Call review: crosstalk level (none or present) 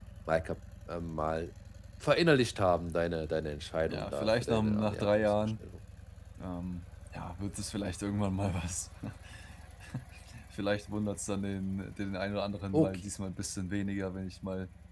present